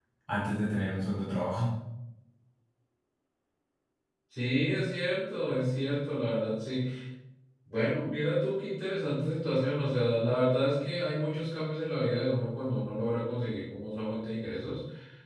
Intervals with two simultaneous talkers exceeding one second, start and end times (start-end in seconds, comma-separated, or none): none